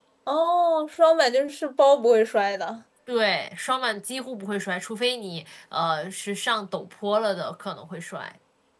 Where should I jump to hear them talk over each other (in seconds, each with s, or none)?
none